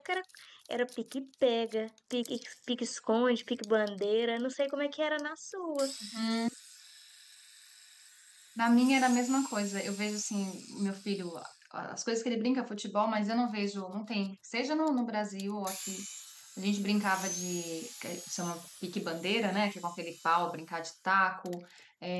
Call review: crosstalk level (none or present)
none